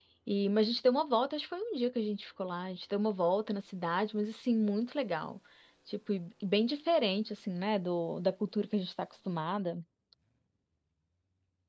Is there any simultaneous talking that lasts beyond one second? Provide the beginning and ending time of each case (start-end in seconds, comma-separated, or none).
none